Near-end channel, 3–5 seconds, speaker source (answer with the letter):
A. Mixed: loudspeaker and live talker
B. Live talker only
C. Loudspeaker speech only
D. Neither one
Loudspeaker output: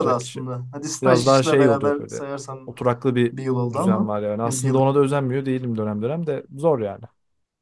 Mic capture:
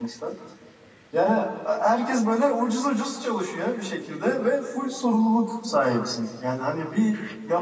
B